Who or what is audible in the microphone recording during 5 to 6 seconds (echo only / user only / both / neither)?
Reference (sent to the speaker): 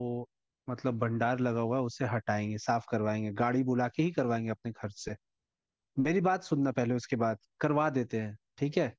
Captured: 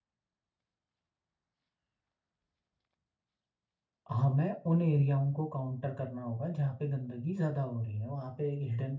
user only